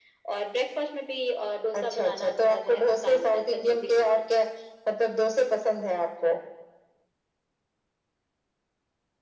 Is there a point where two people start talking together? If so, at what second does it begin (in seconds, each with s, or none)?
1.7 s